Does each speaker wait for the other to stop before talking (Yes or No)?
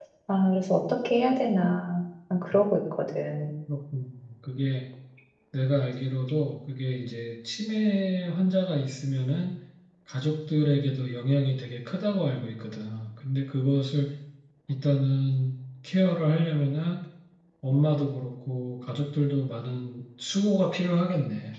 Yes